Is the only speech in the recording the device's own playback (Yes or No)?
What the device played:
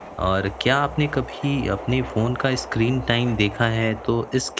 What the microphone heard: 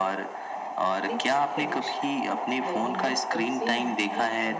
No